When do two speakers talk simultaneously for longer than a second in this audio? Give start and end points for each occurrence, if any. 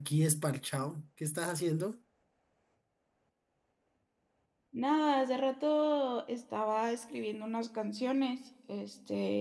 none

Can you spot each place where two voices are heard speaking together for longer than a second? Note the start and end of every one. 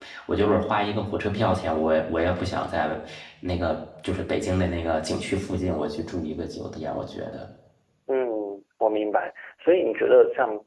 none

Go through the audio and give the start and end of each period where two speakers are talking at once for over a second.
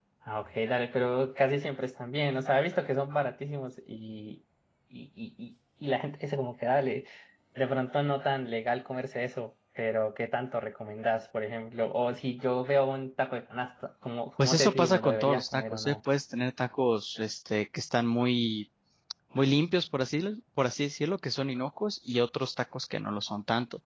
14.4-15.9

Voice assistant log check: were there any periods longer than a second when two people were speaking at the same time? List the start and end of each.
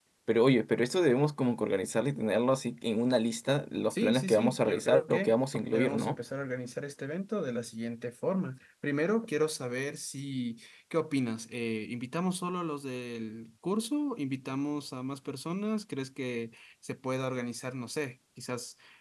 3.9-6.2

